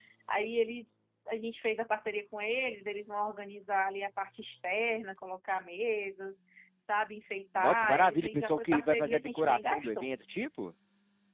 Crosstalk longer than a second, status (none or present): present